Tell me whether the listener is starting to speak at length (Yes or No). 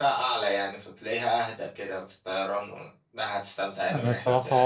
Yes